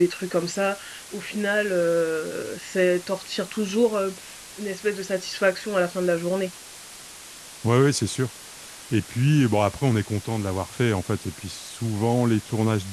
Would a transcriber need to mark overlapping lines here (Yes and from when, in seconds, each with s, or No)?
No